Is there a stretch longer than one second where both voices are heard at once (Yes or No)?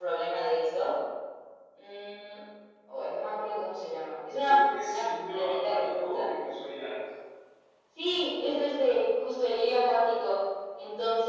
Yes